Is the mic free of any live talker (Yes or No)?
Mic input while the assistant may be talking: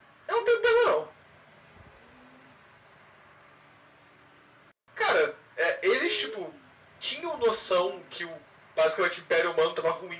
Yes